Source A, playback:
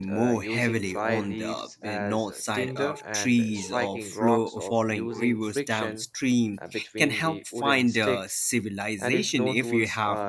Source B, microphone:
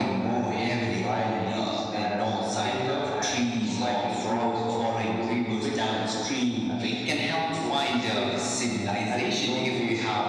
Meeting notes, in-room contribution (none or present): none